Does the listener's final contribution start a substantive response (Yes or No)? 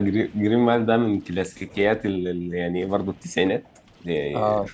No